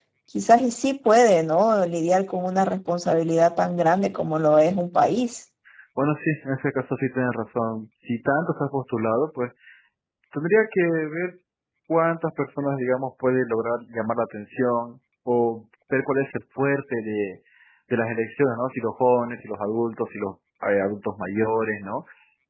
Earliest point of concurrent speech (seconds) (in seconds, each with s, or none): none